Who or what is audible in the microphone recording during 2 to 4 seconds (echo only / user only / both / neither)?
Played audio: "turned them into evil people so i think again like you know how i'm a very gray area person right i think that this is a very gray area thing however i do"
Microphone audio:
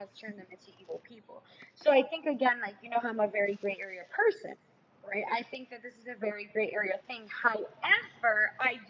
echo only